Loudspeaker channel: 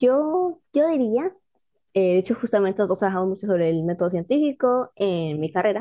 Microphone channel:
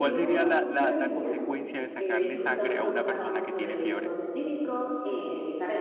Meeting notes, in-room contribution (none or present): present